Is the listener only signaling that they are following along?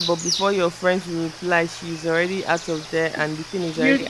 No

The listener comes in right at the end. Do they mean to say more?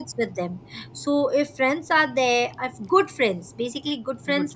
No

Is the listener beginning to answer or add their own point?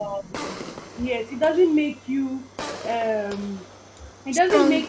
No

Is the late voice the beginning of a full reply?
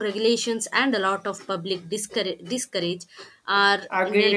Yes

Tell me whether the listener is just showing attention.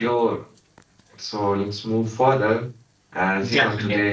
No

